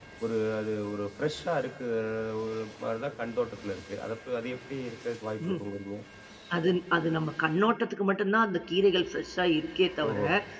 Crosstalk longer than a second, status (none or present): none